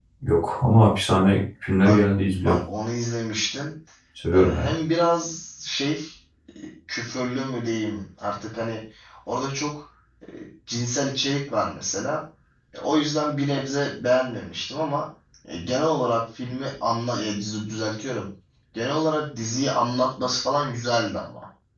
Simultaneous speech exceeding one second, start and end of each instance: none

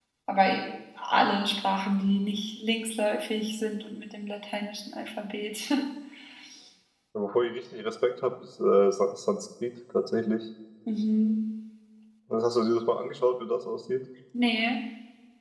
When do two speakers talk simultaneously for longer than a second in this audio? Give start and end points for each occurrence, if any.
none

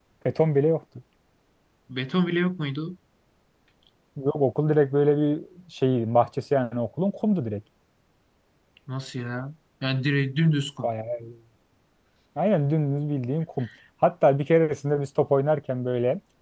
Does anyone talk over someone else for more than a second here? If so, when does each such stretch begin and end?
none

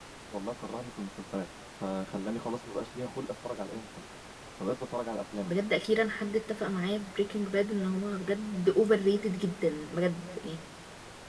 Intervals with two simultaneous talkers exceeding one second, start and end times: none

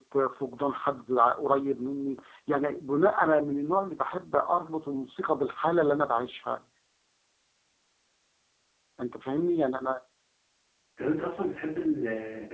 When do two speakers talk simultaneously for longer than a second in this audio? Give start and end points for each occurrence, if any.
none

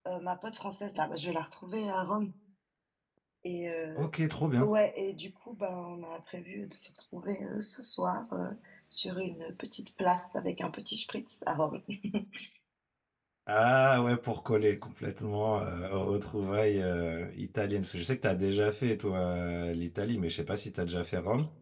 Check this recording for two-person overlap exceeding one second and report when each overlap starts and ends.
none

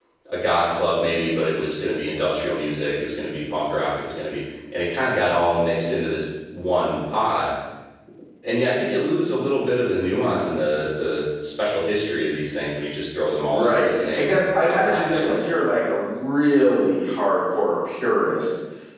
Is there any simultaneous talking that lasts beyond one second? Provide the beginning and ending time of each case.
13.5-15.2

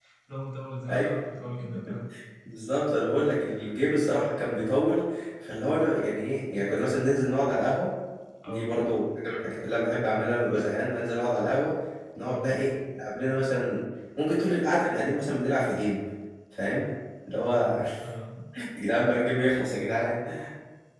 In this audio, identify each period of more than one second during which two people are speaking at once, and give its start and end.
none

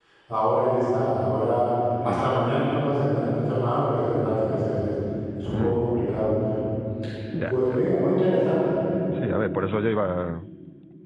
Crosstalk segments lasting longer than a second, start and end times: none

